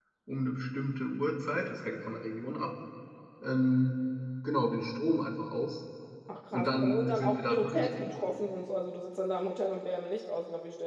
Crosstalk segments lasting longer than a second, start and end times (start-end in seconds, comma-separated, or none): 6.5-8.1